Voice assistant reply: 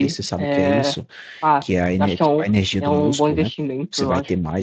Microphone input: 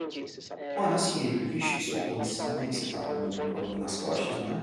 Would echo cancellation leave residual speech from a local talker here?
Yes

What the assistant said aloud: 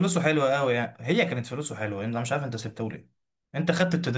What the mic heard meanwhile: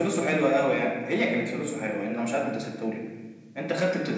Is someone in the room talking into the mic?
No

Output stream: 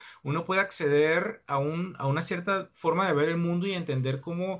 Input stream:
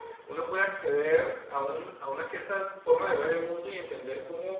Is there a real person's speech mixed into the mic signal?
No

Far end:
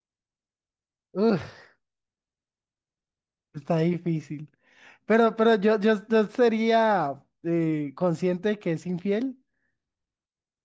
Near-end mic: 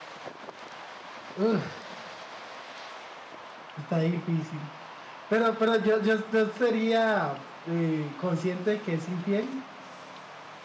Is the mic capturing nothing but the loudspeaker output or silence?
Yes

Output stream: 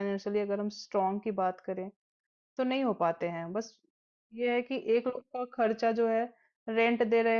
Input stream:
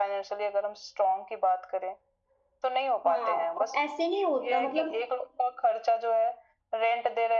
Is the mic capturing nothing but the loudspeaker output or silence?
No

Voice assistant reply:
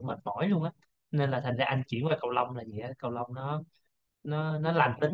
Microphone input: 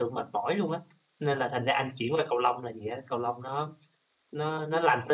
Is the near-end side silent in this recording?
Yes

